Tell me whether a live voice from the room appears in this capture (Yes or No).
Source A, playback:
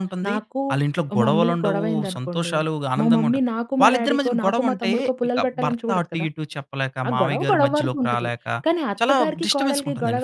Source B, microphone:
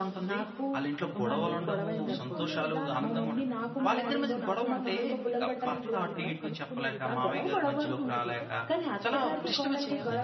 Yes